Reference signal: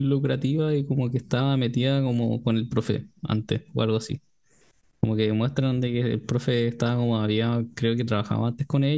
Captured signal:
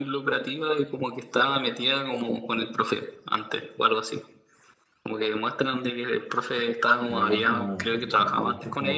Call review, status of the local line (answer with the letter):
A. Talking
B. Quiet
A